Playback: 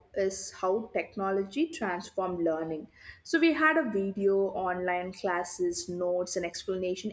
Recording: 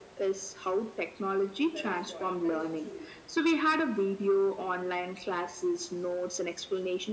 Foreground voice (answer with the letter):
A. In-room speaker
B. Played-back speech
B